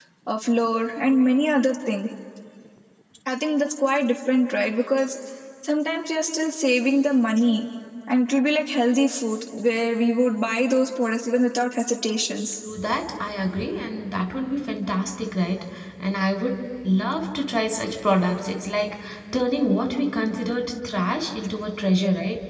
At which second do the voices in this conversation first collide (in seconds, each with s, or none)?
none